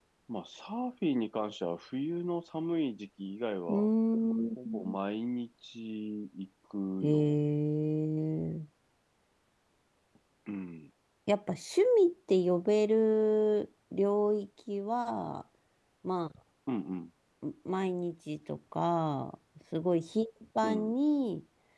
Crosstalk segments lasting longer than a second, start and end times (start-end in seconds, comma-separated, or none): none